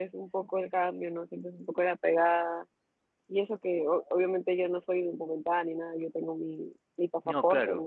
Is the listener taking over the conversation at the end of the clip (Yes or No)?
No